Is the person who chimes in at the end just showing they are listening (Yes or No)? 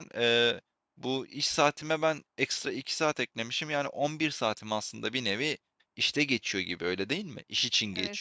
No